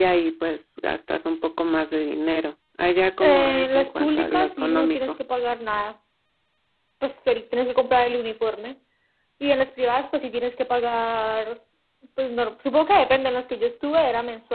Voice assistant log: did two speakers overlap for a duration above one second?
Yes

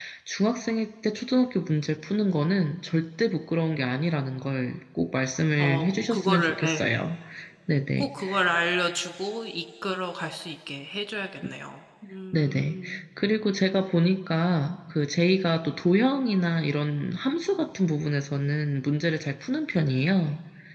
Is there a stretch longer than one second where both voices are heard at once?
Yes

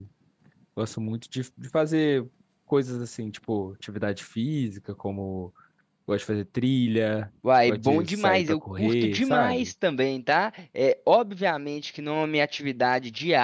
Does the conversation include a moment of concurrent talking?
Yes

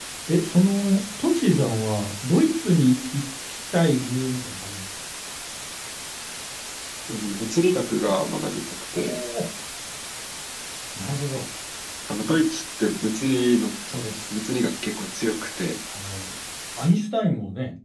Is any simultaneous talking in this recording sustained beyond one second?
No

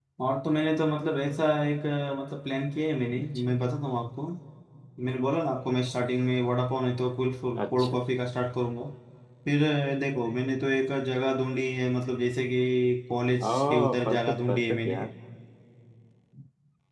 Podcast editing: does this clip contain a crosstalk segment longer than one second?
Yes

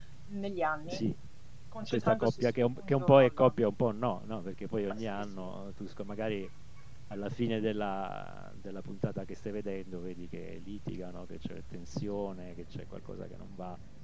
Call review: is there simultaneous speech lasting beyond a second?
Yes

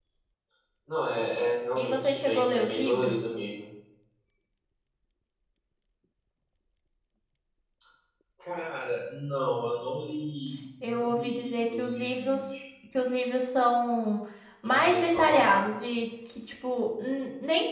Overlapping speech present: Yes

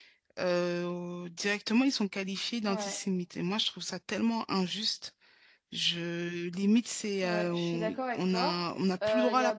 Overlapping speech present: Yes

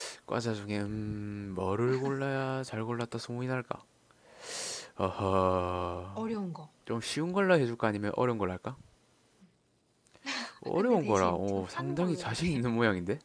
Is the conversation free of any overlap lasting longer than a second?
No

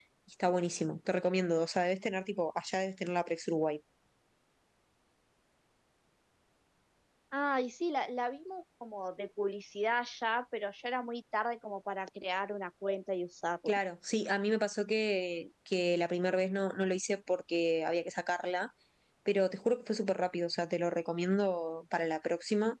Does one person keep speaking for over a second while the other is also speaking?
No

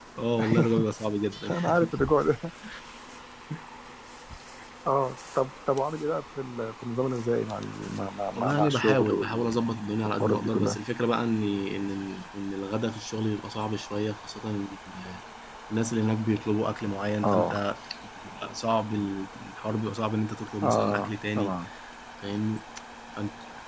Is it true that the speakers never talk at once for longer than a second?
No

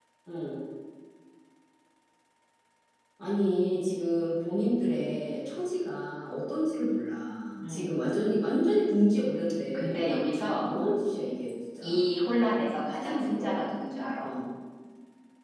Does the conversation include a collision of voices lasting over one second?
No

